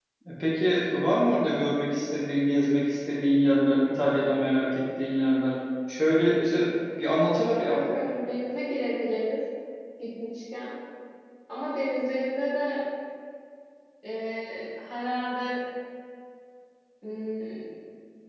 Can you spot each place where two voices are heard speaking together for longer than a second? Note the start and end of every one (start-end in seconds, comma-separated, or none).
none